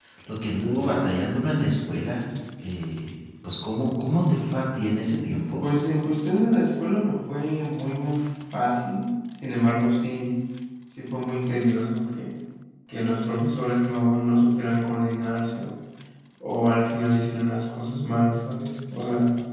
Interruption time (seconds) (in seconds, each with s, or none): none